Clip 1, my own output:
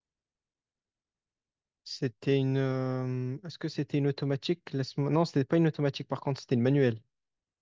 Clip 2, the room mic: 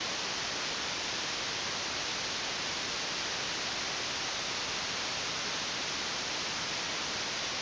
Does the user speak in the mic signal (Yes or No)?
No